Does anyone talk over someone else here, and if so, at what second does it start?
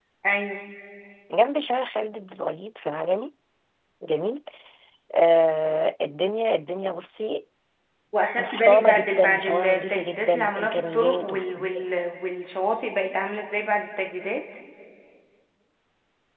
8.4 s

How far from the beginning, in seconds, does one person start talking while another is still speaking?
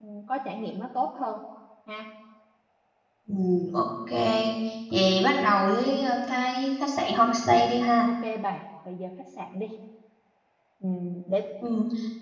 none

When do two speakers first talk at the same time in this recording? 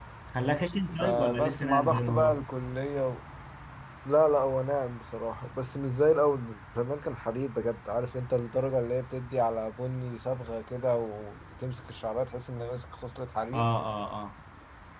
1.0 s

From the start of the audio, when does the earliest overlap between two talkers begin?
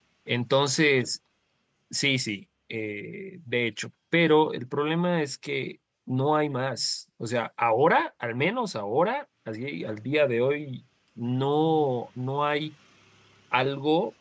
none

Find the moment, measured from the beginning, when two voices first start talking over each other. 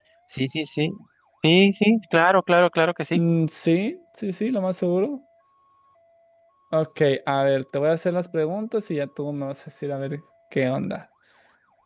none

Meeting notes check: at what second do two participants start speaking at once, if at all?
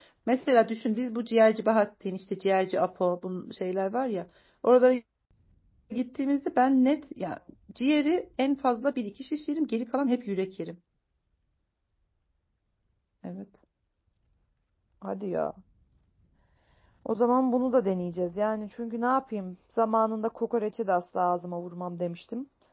none

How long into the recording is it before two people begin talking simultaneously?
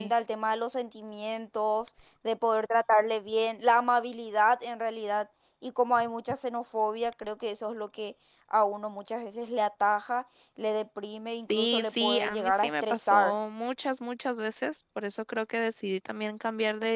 11.5 s

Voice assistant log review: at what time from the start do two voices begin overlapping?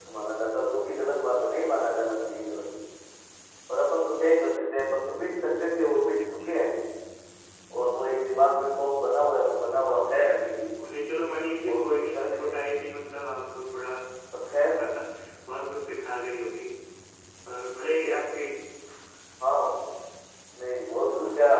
11.6 s

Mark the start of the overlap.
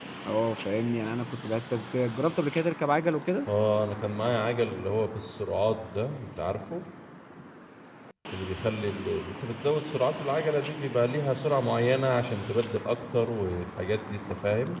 none

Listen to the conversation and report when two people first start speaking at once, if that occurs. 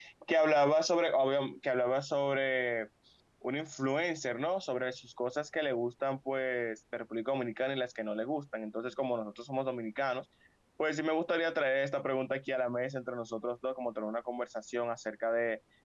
none

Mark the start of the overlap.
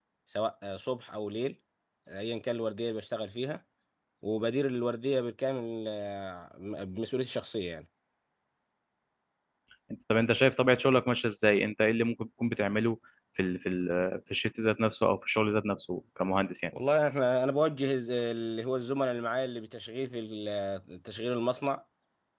none

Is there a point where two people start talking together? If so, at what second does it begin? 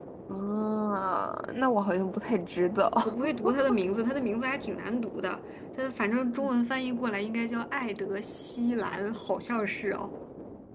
none

